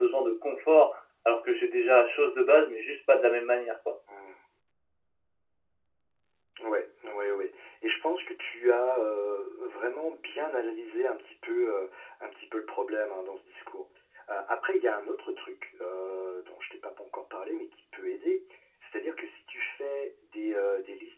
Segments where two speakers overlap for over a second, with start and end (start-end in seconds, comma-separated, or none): none